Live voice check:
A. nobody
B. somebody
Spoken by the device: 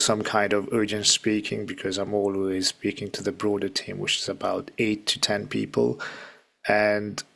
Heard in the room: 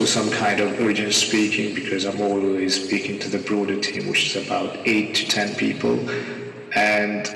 A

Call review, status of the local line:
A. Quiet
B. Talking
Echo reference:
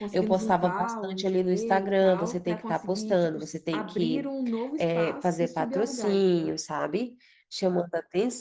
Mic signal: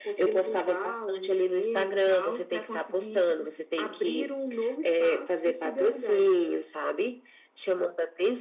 A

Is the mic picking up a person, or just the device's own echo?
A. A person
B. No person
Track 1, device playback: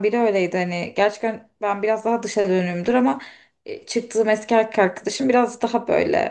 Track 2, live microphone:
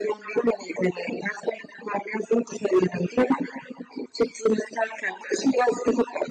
B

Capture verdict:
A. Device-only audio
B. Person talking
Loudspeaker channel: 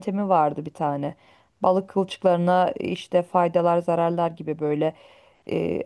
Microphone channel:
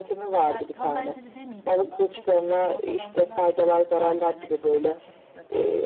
B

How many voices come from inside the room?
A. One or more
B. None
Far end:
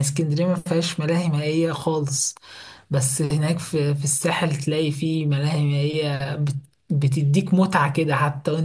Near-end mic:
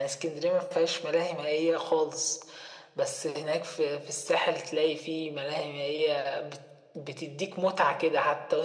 B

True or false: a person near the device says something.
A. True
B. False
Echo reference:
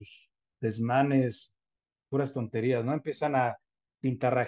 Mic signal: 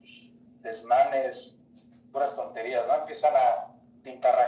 B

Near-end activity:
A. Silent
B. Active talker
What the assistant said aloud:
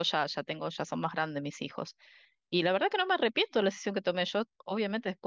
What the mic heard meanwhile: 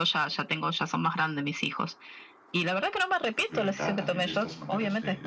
B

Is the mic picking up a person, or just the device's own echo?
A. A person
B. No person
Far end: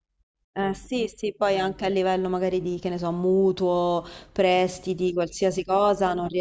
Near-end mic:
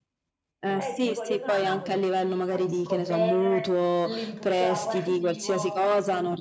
A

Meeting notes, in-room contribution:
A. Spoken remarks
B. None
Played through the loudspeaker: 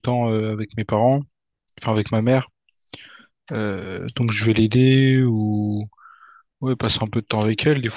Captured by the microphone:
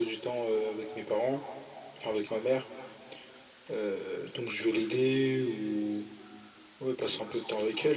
B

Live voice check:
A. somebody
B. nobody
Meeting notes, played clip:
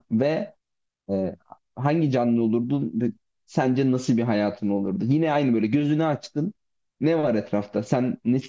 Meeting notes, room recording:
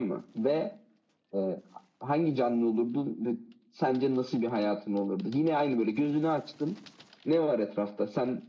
B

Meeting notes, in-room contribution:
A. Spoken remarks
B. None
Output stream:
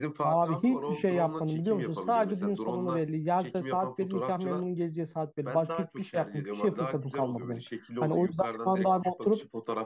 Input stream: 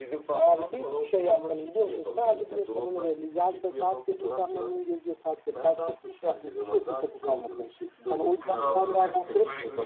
A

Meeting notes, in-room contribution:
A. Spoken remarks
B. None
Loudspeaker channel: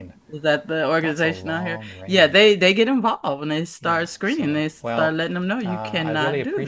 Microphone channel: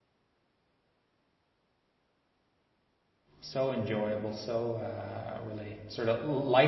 A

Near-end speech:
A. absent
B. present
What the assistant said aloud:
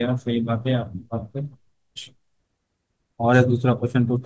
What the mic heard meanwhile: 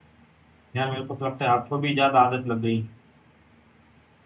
B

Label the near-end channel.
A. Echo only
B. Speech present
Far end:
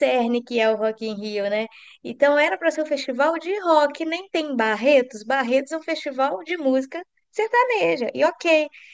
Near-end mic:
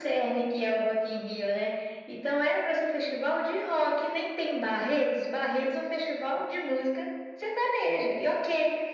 A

